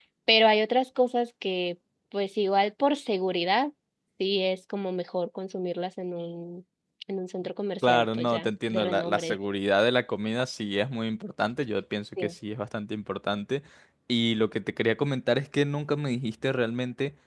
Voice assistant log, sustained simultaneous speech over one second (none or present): present